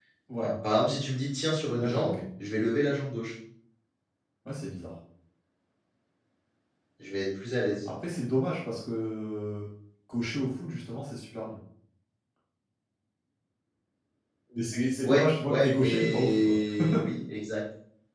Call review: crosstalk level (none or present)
present